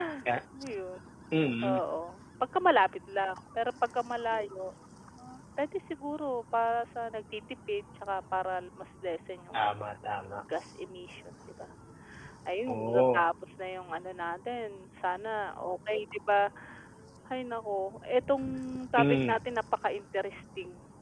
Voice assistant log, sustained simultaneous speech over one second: none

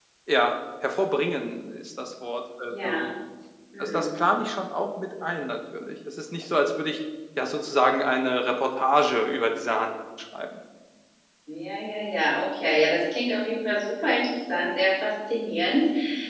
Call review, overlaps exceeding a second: none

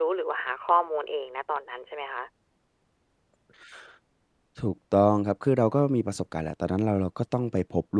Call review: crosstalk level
none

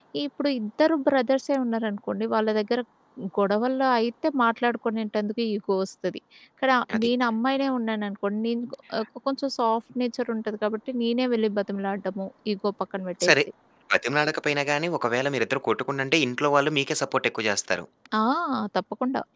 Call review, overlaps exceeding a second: none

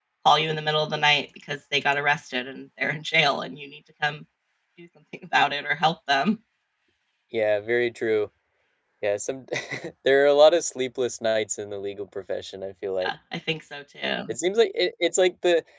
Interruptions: none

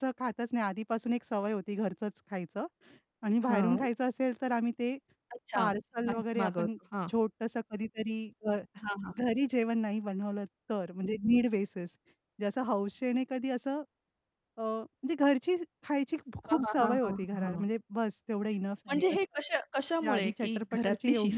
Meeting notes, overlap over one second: present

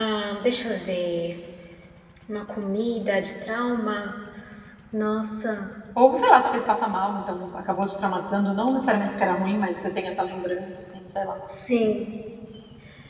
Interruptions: none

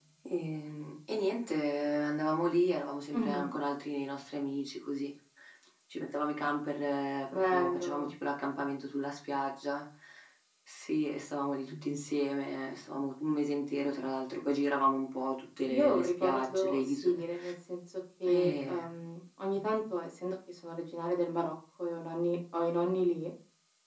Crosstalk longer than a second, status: present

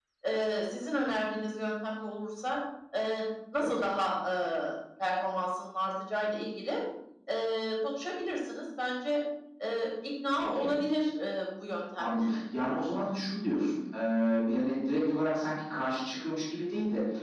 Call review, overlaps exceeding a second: none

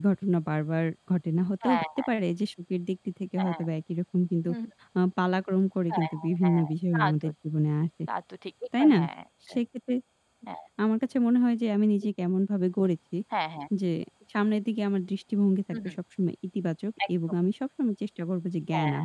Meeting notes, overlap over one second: present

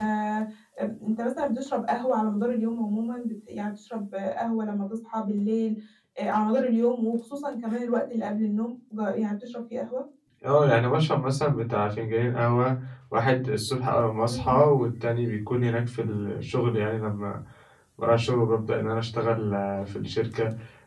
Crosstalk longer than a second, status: none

